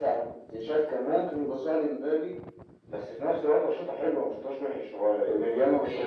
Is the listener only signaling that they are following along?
No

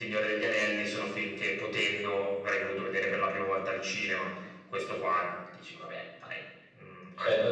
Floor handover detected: Yes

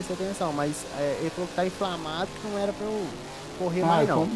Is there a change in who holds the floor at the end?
Yes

